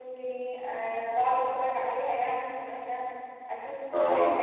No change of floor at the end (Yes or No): Yes